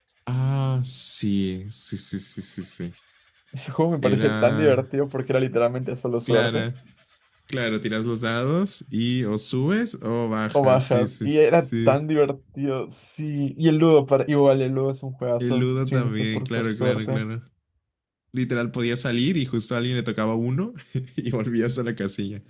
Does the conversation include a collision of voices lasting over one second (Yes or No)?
Yes